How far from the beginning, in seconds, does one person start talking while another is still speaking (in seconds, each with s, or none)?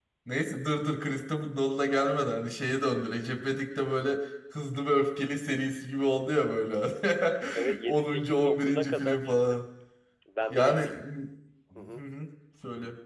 7.8 s